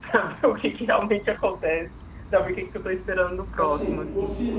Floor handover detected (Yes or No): Yes